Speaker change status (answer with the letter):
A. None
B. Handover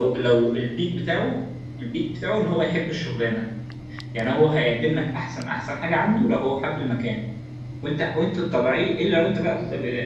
A